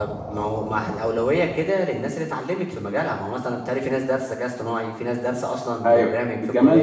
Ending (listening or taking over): taking over